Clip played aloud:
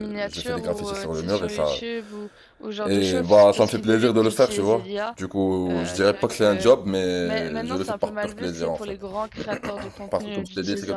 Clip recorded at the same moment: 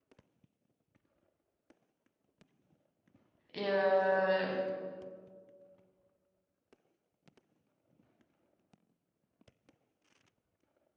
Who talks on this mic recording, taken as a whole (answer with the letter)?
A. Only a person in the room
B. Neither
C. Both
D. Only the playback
A